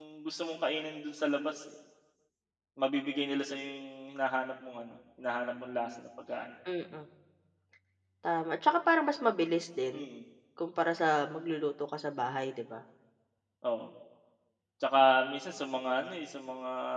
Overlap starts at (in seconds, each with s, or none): none